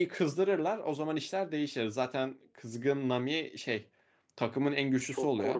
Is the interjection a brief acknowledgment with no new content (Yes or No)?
No